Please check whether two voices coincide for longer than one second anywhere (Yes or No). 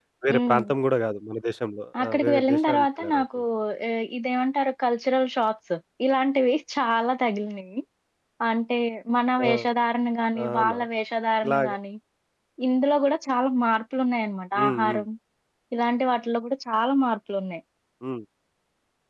Yes